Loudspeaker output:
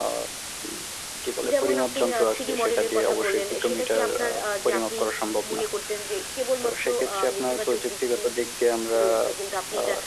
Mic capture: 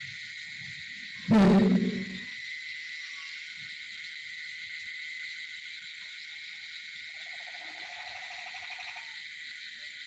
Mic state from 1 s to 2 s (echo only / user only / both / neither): user only